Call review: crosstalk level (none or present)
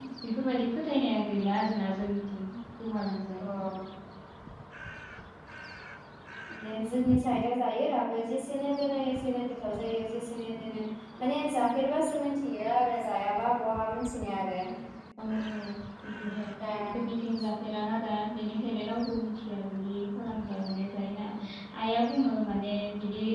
none